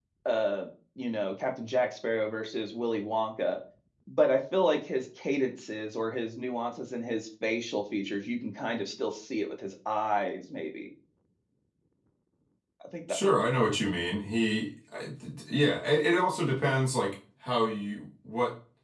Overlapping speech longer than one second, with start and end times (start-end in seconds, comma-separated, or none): none